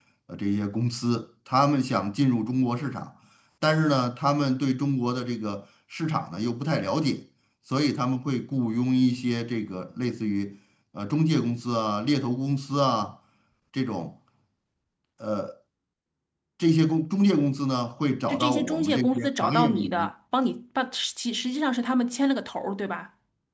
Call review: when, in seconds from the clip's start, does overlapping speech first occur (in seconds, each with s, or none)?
18.3 s